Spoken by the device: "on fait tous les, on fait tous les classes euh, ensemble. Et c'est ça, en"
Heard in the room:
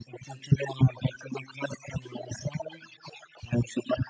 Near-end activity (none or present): none